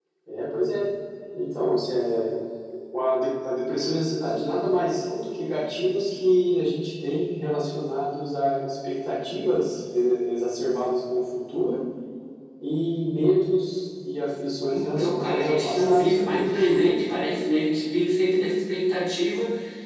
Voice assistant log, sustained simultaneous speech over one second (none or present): present